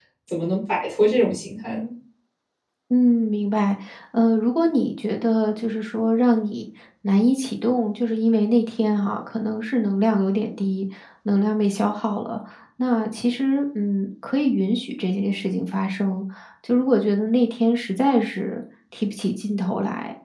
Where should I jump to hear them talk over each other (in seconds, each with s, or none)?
none